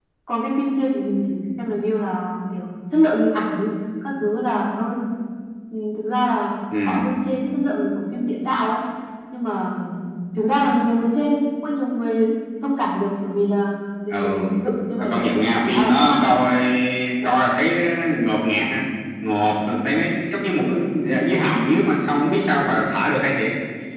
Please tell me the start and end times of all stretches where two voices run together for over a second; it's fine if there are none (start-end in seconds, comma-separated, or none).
15.0-16.3